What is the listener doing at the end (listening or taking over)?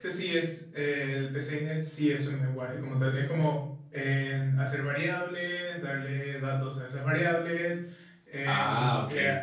listening